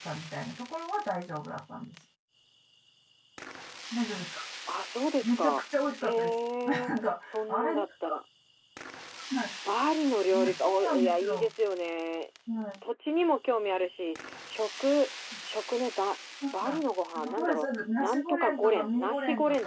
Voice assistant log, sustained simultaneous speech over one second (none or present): present